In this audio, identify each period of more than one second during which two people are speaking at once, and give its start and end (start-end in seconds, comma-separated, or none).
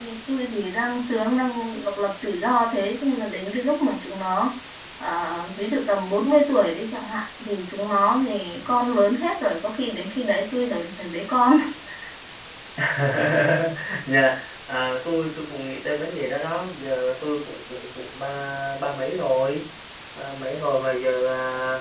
none